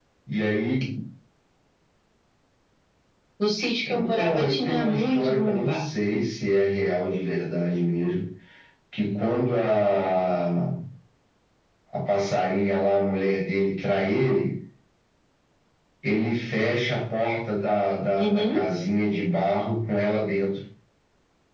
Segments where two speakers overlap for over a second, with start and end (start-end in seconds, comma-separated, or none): 3.9-5.9